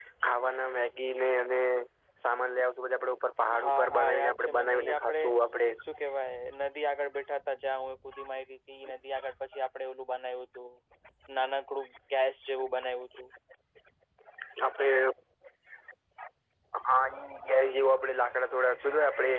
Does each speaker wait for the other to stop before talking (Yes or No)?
No